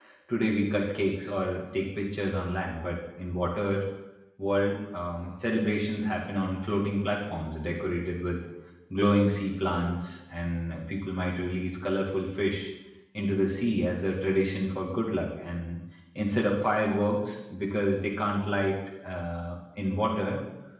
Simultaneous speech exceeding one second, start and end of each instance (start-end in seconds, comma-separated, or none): none